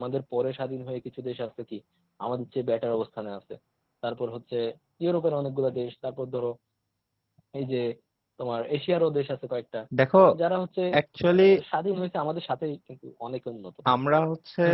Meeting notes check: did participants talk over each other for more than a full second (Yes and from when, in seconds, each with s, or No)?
No